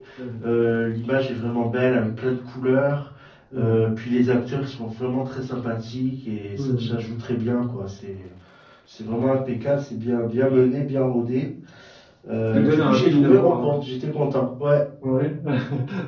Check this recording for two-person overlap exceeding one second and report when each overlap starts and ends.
12.5-13.8

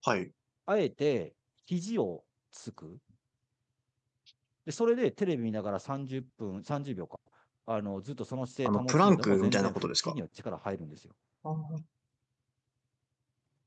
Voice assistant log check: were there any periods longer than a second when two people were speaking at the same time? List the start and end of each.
8.7-10.1

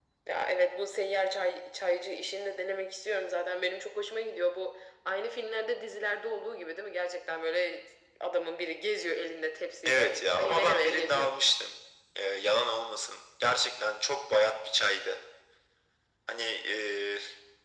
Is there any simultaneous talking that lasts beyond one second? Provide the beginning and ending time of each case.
9.8-11.4

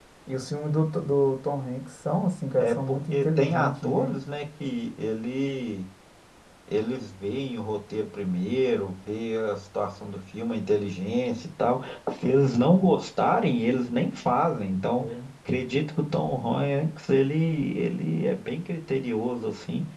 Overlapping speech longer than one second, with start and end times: 2.6-4.1

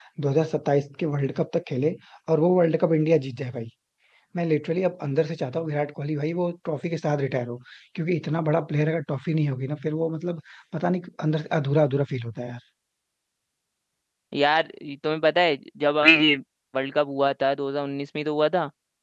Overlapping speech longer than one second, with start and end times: none

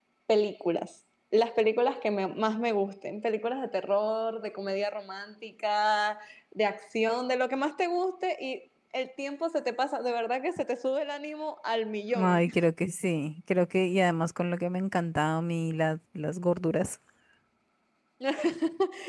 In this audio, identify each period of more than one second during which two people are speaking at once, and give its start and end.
none

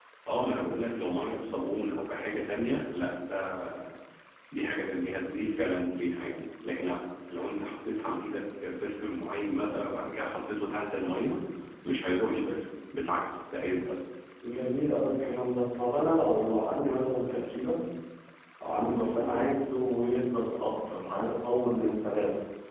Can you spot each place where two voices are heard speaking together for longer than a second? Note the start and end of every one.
none

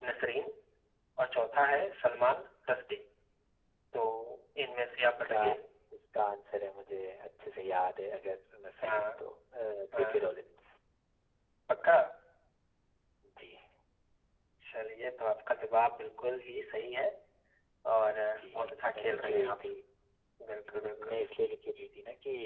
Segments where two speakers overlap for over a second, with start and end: 18.4-19.6

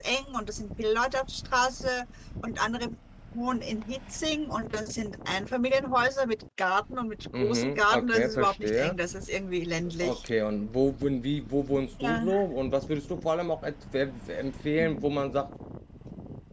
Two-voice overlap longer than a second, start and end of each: 7.3-8.9

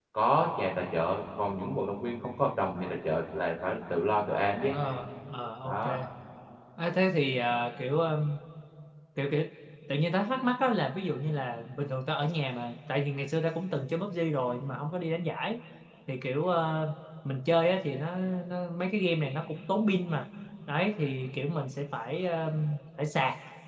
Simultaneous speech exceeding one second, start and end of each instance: none

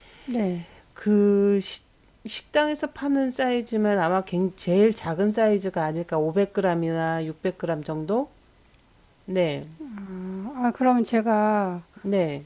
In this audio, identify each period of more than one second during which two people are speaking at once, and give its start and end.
none

